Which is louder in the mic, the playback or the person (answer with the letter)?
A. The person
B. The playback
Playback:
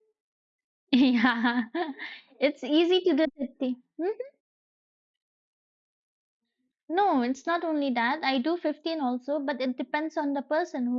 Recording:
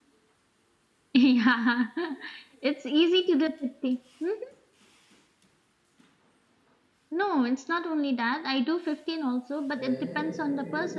B